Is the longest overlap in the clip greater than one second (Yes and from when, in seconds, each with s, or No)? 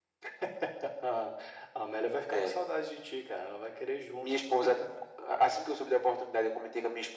No